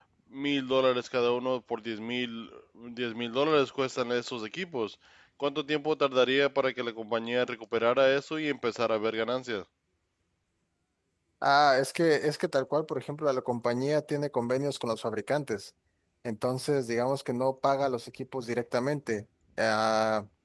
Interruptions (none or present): none